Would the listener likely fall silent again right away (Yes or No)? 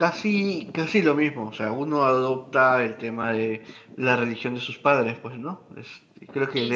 Yes